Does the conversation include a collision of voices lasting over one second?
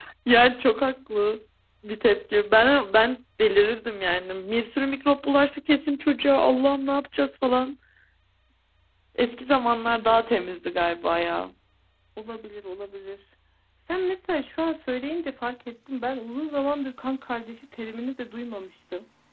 No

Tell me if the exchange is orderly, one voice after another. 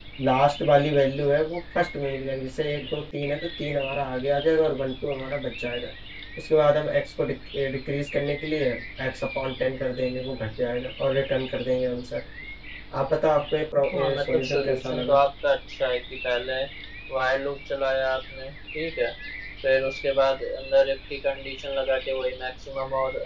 No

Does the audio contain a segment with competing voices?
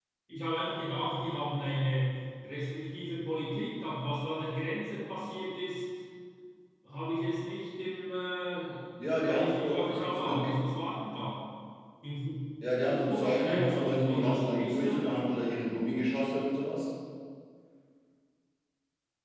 Yes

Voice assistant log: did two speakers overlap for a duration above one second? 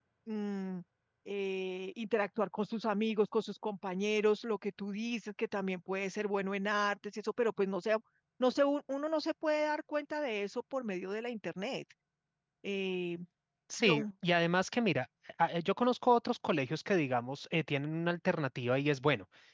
No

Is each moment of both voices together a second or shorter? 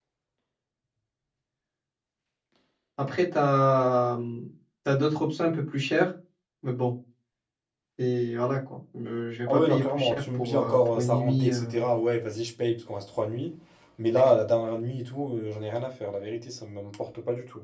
No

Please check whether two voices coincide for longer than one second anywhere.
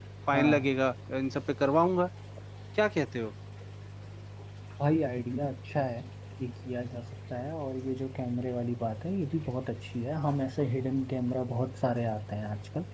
No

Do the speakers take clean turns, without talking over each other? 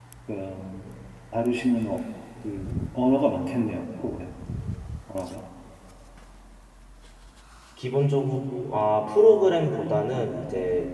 Yes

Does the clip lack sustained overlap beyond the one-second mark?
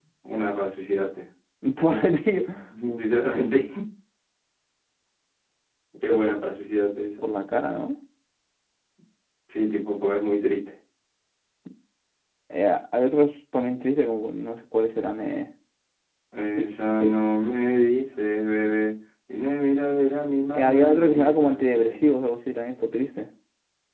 No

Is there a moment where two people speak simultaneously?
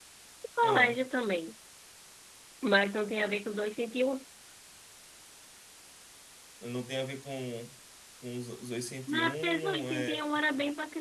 Yes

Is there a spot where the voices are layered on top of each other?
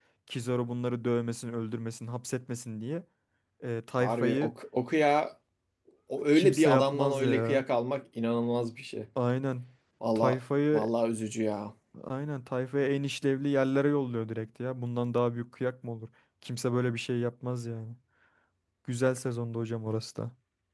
Yes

